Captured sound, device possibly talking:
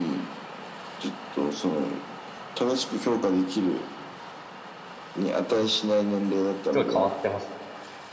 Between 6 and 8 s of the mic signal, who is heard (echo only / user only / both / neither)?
both